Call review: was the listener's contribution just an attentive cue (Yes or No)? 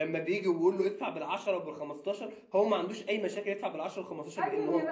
No